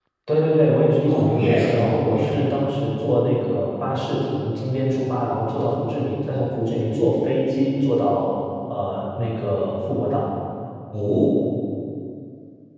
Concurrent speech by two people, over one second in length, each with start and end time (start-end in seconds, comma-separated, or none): 1.1-2.4